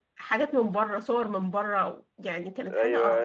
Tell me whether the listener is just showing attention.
No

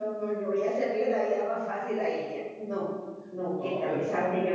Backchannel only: Yes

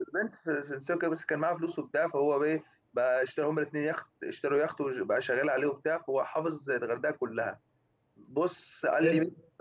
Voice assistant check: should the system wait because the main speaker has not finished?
Yes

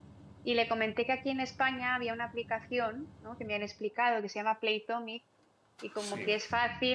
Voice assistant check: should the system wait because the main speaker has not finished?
Yes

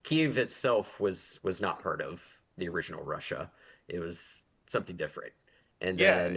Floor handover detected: Yes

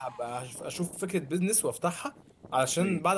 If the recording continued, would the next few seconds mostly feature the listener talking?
No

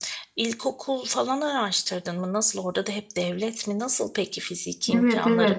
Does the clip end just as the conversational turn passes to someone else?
Yes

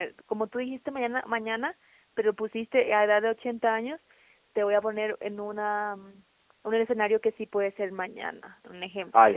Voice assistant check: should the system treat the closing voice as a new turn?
Yes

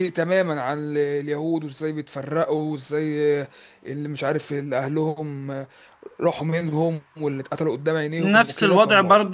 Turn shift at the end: Yes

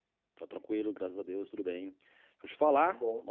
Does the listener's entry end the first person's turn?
No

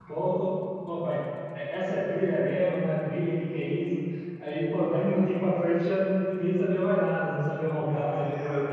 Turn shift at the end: Yes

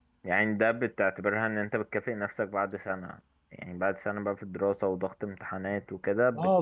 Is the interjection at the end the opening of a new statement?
Yes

